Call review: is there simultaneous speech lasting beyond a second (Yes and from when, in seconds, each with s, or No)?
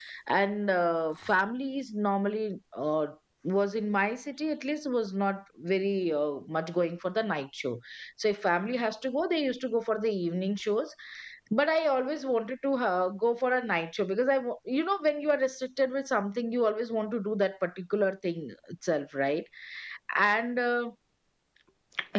No